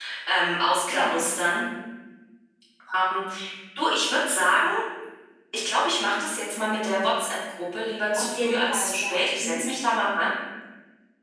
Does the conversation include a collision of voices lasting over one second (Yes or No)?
Yes